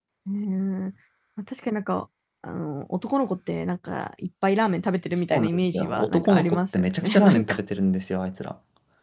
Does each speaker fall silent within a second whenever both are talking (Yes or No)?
No